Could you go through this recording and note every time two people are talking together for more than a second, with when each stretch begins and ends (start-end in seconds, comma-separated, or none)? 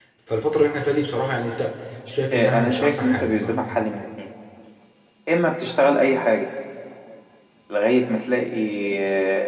2.3-3.5